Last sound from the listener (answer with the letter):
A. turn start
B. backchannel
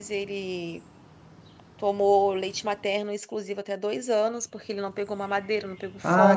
A